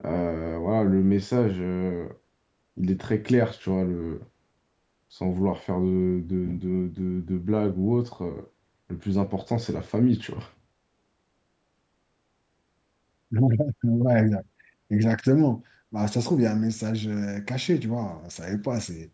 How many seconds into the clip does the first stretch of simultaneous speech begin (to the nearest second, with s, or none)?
none